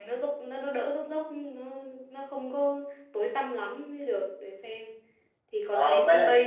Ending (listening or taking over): taking over